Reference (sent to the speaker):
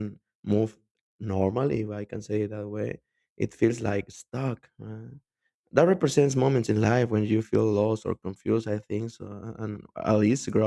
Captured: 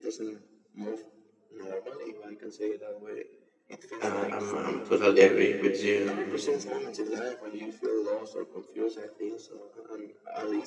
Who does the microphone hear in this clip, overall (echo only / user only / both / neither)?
both